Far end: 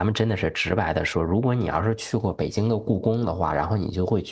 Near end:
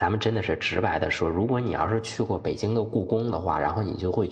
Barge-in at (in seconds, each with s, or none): none